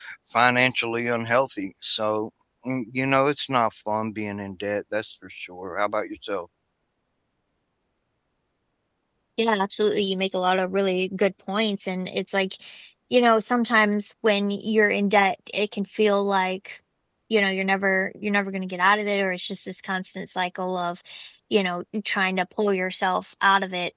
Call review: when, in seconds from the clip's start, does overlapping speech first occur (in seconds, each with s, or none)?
none